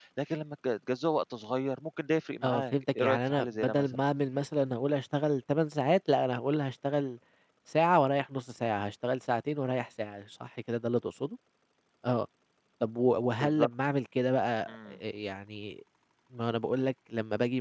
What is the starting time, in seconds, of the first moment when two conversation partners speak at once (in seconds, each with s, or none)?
2.4 s